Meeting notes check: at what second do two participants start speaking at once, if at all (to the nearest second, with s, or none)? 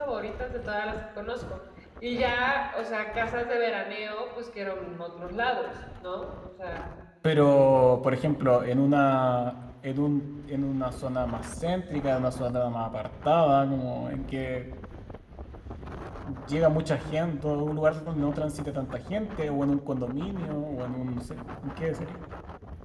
none